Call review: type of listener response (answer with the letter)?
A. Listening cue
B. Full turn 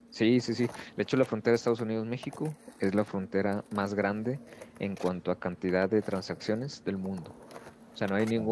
A